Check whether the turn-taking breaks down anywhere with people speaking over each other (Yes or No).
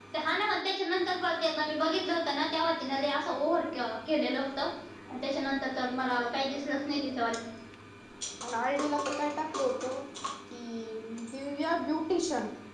No